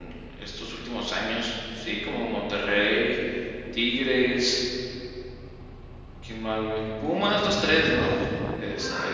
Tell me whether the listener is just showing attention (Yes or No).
No